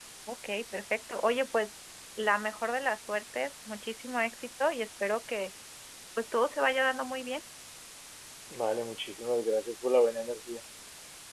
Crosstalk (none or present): none